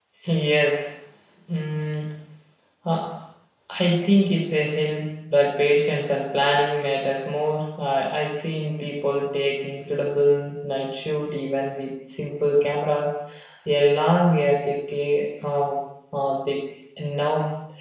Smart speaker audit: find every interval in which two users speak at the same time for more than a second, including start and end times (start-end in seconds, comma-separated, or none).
none